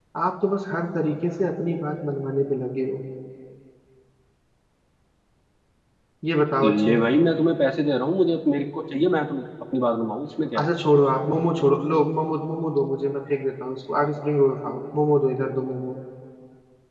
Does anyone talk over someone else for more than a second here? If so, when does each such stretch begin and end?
none

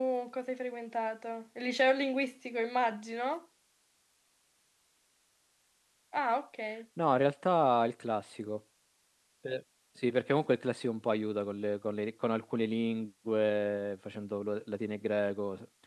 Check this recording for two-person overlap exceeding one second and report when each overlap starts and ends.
none

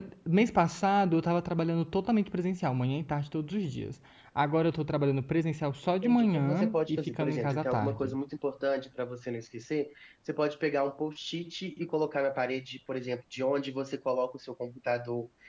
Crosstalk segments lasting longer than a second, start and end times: 6.0-8.2

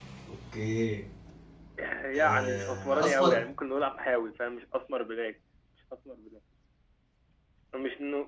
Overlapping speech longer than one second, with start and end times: 2.2-3.4

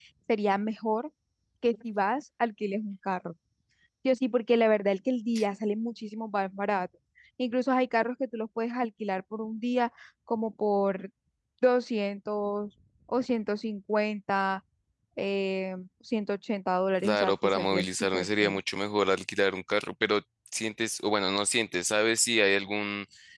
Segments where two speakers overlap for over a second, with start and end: 17.0-18.6

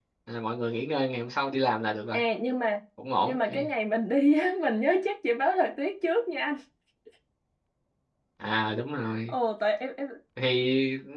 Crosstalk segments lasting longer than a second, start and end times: none

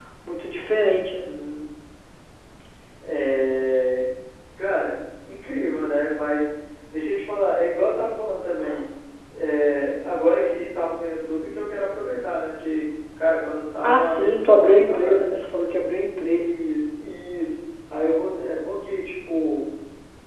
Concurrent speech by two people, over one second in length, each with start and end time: 13.8-15.2

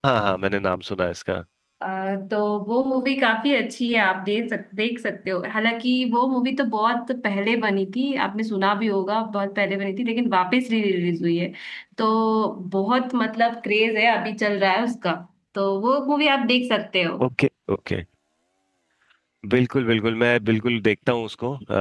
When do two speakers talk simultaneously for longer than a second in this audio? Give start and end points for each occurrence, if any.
none

